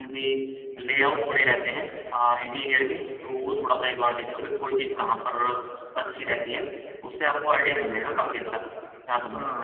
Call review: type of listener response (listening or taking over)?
taking over